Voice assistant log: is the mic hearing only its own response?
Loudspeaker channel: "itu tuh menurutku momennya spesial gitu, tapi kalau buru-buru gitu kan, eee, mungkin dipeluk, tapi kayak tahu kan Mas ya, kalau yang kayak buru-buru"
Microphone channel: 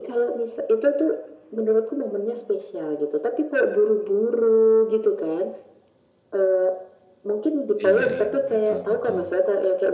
No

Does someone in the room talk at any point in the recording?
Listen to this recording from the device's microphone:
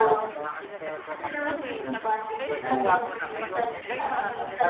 Yes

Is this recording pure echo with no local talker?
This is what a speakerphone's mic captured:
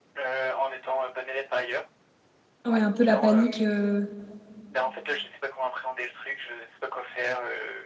No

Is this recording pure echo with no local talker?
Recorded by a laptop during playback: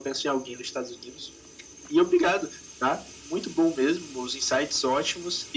Yes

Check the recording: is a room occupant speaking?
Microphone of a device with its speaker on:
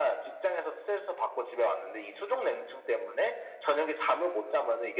No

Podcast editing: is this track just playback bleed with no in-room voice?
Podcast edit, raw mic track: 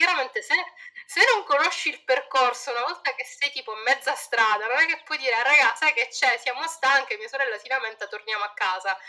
Yes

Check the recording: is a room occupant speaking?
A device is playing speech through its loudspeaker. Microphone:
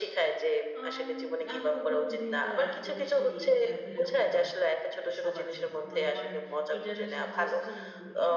Yes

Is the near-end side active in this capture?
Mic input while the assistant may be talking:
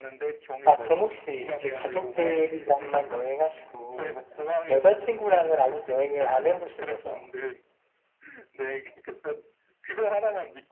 Yes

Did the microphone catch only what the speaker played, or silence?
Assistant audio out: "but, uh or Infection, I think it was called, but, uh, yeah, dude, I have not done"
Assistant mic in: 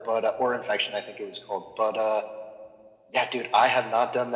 Yes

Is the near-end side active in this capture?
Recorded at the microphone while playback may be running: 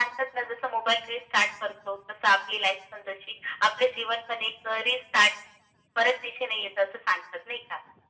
No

